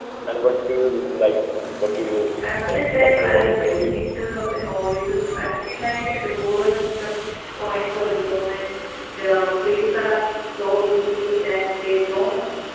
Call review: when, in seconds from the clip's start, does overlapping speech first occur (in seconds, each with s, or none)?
2.4 s